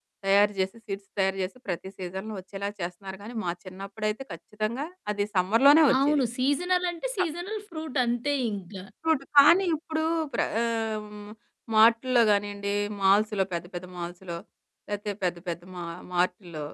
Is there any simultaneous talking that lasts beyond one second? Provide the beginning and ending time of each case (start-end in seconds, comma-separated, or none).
none